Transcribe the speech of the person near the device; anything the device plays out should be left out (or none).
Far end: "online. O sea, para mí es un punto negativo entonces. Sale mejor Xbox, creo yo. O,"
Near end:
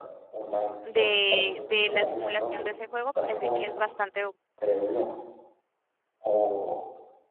de, de la simulación de ese juego parece que es bastante